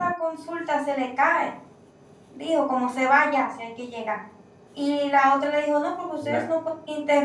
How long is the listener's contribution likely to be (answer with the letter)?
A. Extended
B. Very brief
B